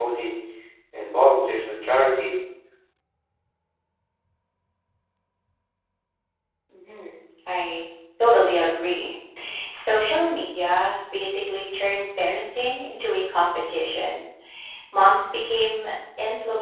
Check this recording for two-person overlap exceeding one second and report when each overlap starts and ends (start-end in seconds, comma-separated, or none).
none